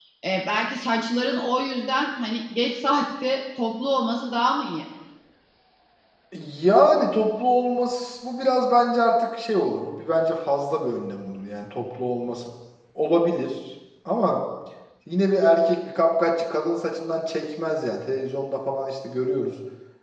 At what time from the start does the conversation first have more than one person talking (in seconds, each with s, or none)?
none